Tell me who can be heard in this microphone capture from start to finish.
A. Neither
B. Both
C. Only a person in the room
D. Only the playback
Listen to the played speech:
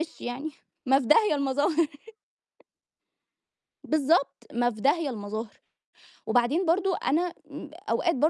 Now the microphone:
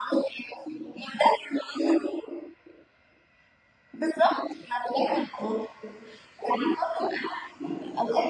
D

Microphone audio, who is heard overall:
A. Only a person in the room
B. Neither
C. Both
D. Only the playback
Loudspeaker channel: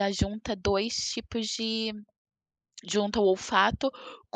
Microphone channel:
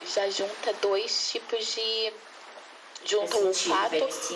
C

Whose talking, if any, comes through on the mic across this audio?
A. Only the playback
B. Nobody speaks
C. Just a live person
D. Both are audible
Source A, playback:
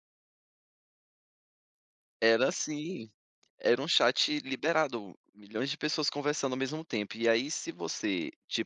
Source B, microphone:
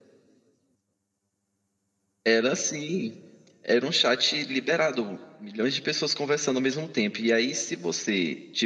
A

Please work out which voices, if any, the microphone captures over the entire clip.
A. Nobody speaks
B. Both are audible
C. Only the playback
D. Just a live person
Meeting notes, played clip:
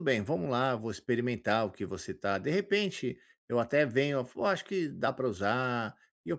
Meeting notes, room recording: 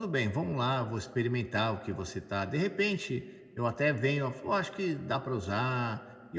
C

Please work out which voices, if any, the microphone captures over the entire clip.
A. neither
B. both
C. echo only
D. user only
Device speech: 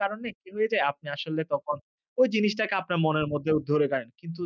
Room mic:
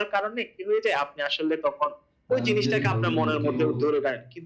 B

